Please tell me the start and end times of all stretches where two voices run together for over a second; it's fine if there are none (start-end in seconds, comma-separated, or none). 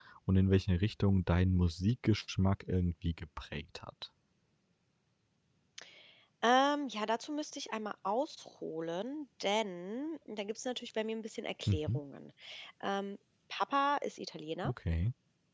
none